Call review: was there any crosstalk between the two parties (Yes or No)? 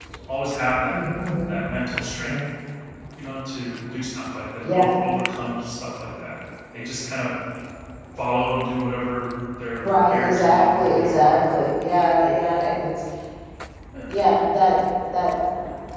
Yes